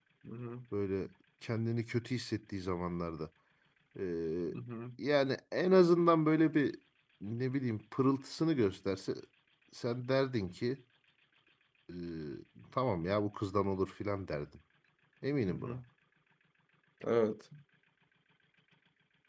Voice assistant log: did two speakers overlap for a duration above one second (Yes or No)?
No